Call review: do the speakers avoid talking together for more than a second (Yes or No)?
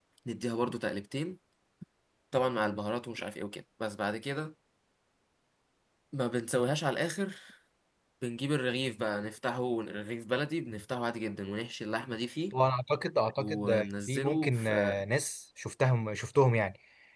No